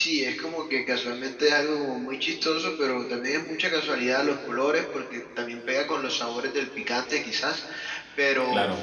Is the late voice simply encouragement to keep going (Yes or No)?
Yes